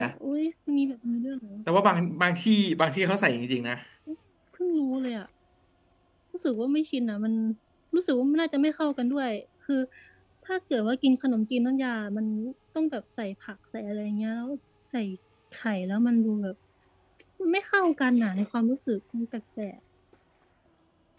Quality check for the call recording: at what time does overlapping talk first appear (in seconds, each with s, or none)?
none